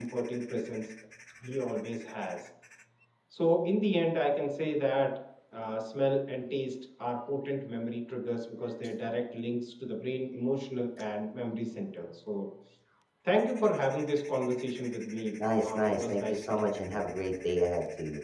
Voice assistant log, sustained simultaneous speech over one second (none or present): present